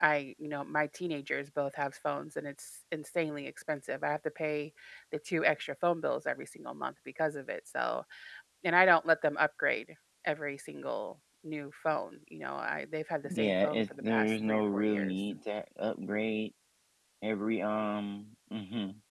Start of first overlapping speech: 13.2 s

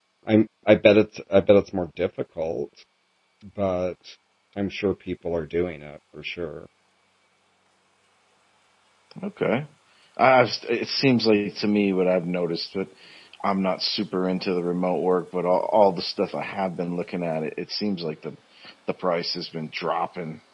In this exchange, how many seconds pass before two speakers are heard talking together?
none

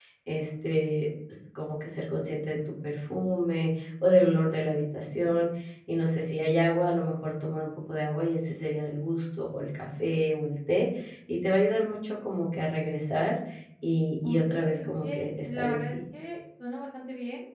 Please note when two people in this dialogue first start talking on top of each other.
14.2 s

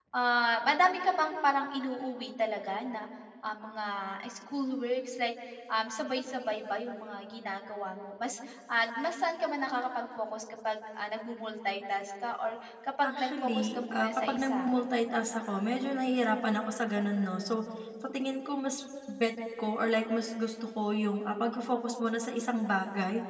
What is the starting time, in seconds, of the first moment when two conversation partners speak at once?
13.0 s

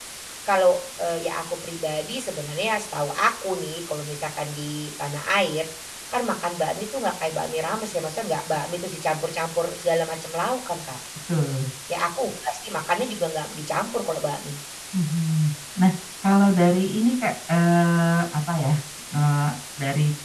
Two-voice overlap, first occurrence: none

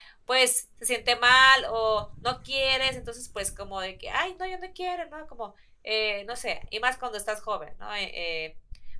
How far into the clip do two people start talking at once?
none

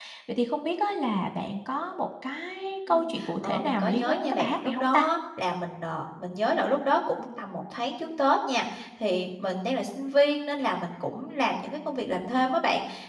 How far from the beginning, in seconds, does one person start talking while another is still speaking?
3.4 s

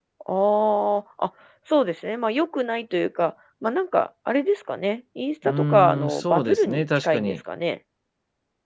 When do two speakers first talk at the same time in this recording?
5.4 s

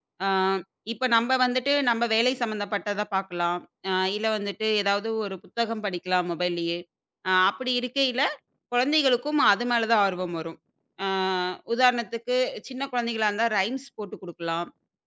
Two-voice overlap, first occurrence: none

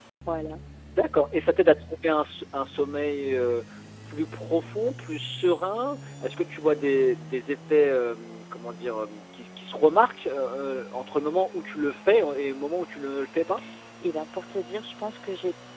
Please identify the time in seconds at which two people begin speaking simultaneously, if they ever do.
none

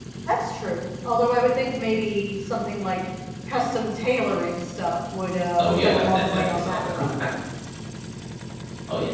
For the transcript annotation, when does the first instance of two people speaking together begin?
5.6 s

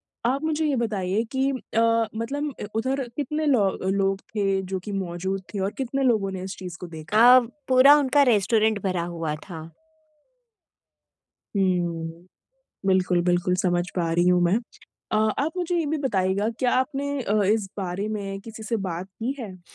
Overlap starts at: none

